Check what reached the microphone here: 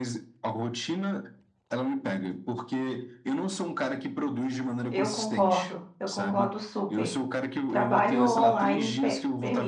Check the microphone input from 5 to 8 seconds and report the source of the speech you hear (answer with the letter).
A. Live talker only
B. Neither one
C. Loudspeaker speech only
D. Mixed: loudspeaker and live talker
D